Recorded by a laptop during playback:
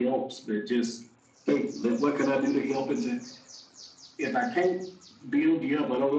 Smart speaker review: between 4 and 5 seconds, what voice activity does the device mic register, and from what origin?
echo only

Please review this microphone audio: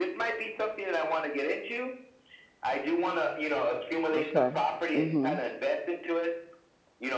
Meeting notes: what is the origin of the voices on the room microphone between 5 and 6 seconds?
both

